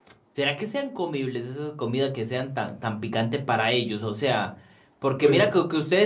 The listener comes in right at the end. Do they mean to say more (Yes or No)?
No